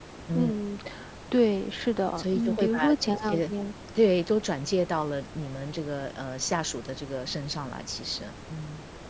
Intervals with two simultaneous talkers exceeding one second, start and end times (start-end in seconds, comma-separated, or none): 2.2-3.5